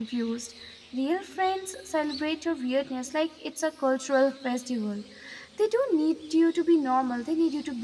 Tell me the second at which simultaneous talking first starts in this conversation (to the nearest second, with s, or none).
none